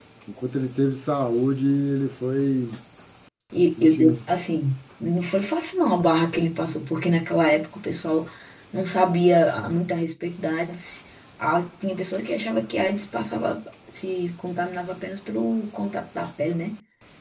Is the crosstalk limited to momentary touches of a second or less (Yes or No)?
Yes